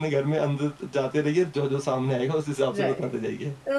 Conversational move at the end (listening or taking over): taking over